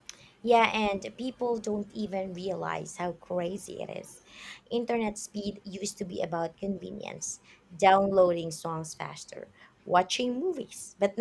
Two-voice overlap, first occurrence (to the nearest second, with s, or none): none